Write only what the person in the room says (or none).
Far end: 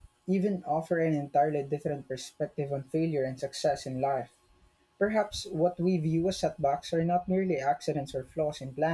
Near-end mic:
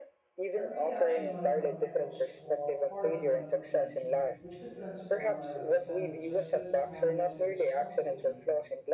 every action might have echoes for, far beyond what we can see, which could transform our understanding of justice, kindness, and responsibility.